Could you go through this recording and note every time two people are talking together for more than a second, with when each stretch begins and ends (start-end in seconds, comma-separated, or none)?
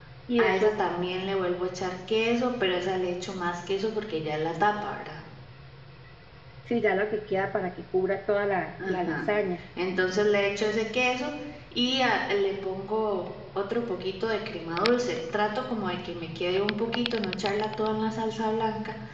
none